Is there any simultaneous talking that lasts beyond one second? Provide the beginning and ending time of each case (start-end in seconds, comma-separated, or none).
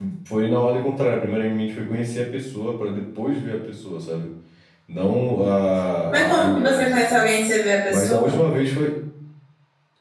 6.1-7.3